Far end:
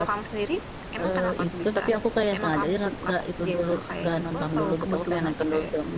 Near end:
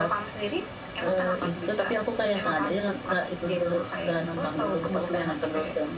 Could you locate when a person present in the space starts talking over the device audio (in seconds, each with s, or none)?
none